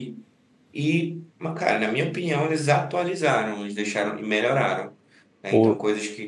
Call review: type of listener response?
listening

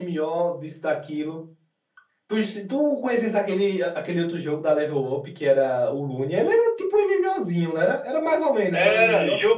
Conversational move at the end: taking over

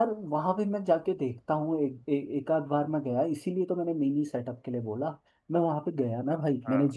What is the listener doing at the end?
listening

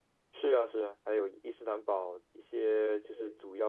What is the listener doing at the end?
listening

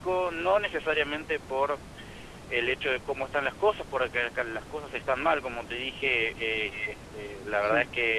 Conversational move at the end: listening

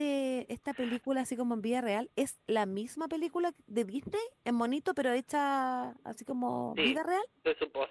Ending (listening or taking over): taking over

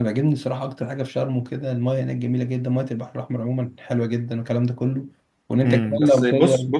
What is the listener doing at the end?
taking over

